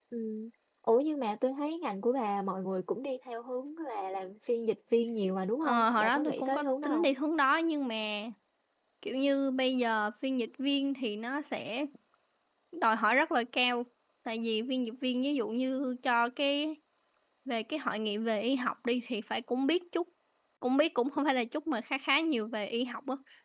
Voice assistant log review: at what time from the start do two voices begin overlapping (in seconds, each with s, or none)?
5.6 s